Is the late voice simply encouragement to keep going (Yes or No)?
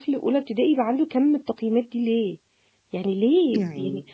Yes